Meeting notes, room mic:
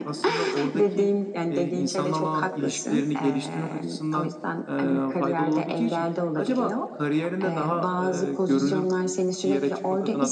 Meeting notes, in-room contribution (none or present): none